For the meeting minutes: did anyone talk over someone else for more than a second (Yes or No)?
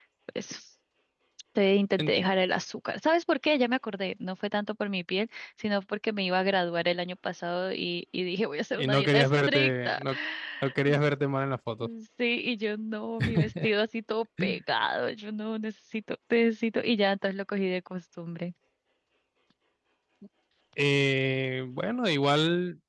Yes